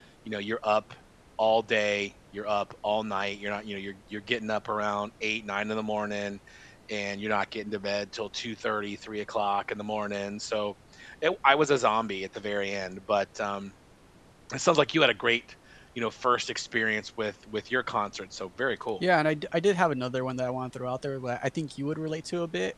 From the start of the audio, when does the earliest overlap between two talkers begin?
none

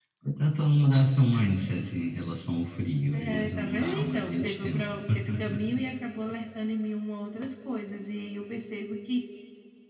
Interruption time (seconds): 3.1 s

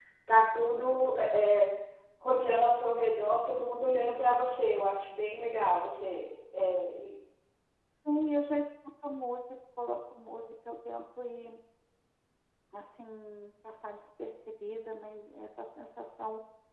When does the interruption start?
none

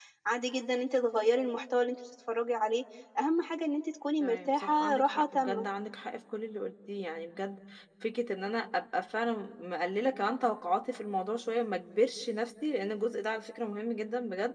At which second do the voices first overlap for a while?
4.2 s

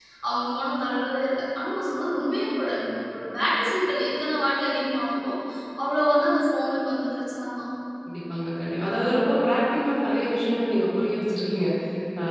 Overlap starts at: none

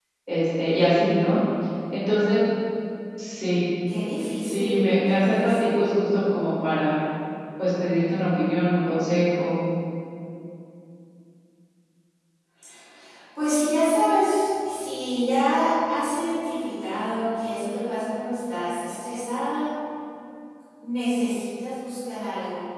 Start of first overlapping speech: 4.4 s

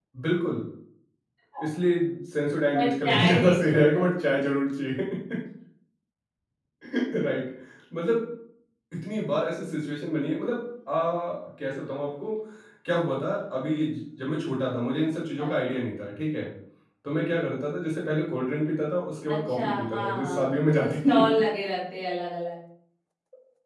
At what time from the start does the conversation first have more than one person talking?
2.8 s

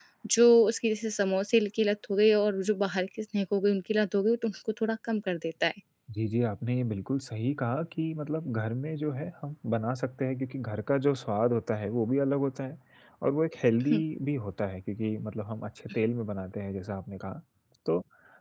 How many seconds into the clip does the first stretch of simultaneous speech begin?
none

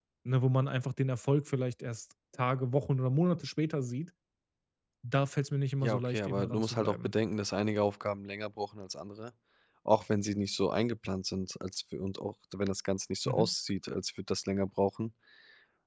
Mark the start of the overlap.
5.8 s

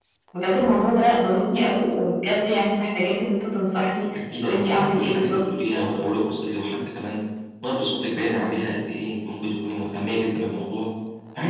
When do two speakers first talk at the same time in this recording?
4.4 s

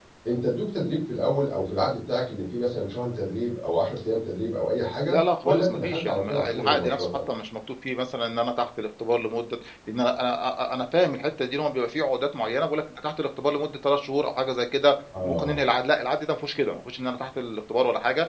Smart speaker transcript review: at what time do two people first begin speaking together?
5.1 s

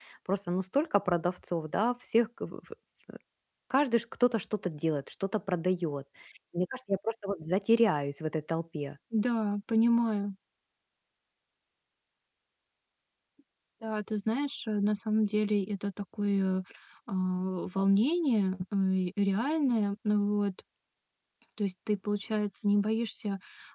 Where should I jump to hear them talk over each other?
none

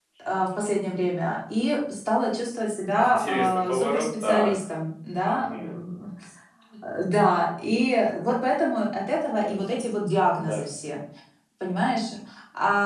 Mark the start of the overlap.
3.0 s

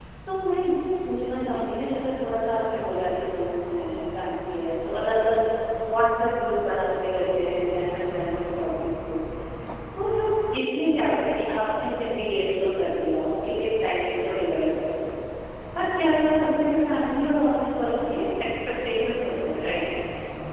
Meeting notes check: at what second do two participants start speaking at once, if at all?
none

